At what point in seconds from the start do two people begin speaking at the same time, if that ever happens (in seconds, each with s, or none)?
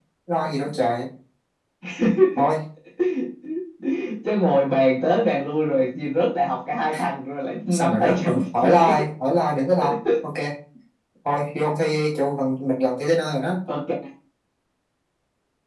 7.7 s